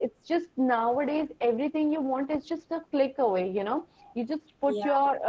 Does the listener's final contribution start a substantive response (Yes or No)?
No